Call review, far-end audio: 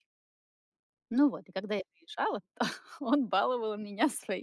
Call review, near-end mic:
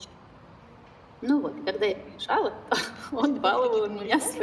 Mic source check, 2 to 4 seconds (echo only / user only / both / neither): both